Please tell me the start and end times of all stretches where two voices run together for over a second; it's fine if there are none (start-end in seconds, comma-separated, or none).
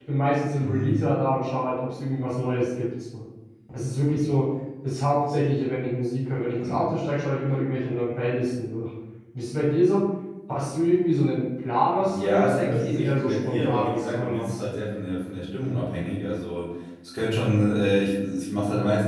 12.1-14.6